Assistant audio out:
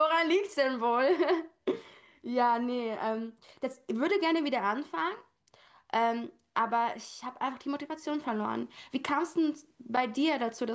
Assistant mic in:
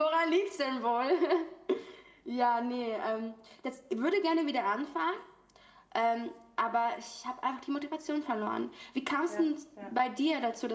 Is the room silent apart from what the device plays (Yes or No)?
No